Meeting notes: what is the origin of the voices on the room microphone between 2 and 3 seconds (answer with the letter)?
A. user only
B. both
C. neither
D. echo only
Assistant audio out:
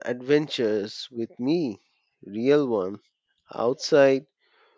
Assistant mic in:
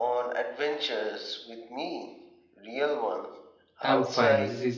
D